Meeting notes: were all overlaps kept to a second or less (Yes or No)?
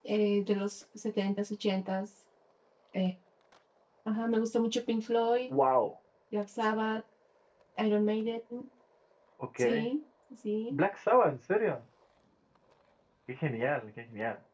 Yes